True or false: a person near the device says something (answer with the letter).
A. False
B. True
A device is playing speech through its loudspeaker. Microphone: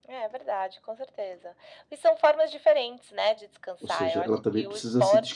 B